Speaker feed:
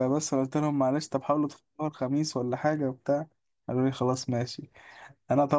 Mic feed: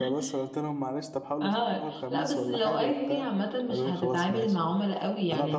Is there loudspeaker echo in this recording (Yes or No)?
Yes